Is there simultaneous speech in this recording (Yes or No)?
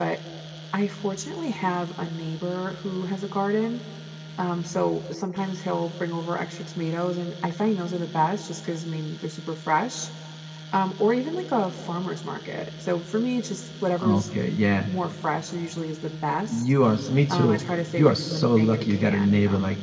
Yes